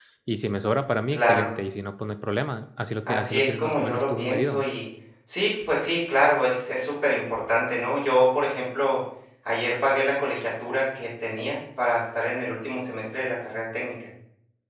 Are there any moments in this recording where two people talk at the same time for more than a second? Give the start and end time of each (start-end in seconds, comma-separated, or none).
3.1-4.6